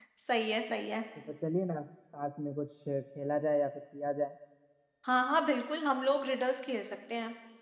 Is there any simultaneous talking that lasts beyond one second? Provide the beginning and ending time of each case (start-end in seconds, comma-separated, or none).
none